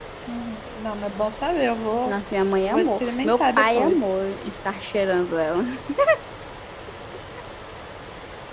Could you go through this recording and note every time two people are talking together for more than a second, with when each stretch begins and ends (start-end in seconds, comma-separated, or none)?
2.7-4.0